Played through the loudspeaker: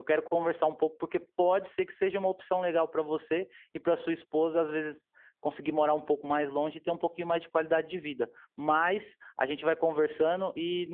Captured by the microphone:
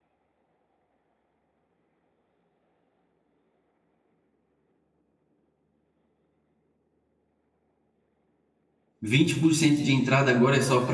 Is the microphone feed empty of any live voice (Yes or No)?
No